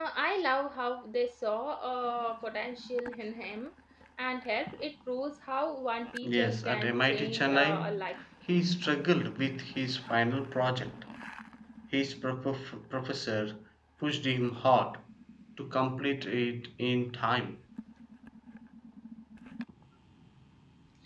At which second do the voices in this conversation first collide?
6 s

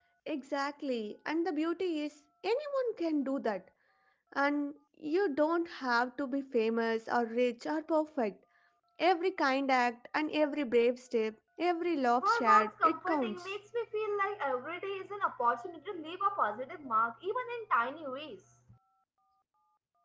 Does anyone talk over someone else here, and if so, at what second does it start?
12 s

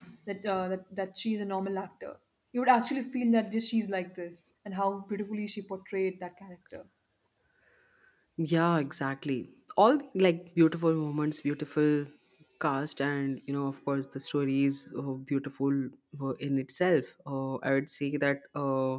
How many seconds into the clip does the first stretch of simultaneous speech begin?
none

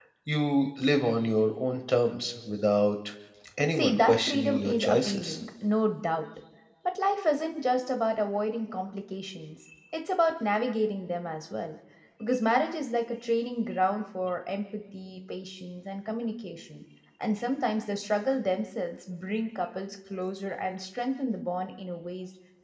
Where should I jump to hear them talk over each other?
4 s

